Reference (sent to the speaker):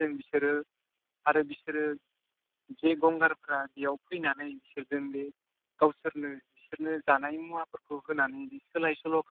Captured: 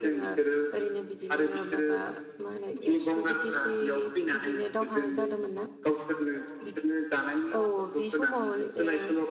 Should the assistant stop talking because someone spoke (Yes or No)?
Yes